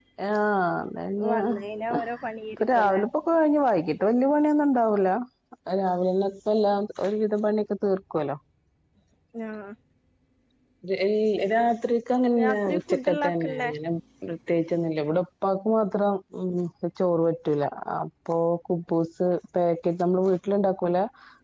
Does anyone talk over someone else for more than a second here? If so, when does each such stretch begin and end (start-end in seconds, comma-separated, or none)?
12.4-13.7